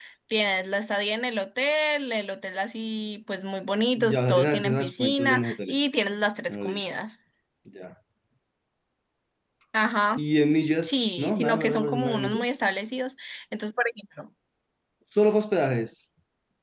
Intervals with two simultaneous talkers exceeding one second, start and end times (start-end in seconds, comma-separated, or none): 4.0-5.9, 10.8-12.4